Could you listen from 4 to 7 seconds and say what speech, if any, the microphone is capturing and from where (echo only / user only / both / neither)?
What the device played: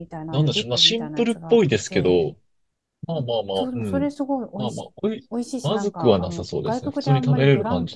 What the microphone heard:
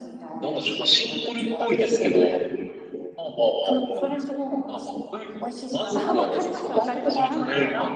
both